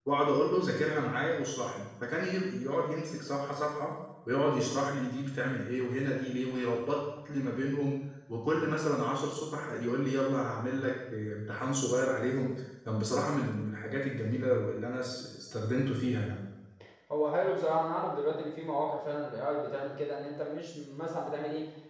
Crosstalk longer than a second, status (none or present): none